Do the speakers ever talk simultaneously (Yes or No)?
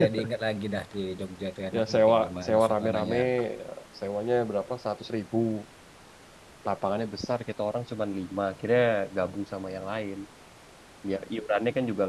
Yes